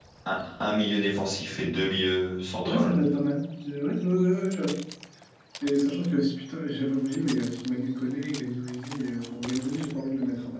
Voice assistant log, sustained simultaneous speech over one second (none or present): none